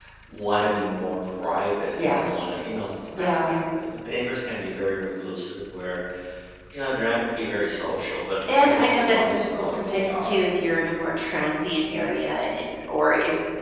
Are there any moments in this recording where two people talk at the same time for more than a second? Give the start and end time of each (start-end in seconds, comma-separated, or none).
8.6-10.4